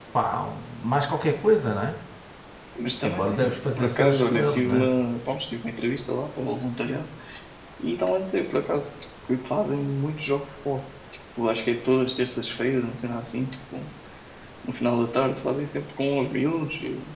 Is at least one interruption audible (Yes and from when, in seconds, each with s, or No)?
Yes, from 3.0 s